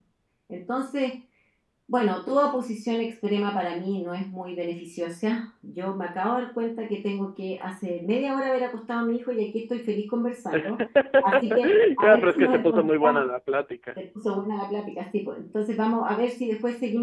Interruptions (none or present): present